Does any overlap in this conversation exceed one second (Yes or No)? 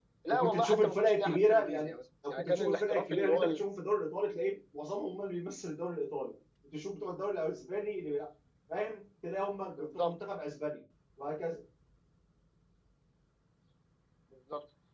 Yes